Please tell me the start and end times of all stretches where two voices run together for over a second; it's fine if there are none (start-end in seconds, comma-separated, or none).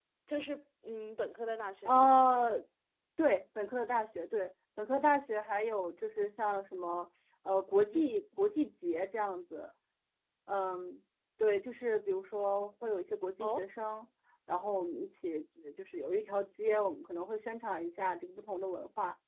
none